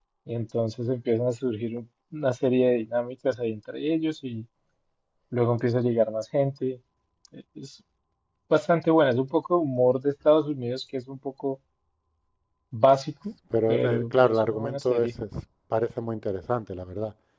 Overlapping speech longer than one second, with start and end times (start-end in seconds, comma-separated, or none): 13.7-15.1